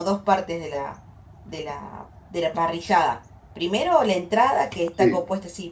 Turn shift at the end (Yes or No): No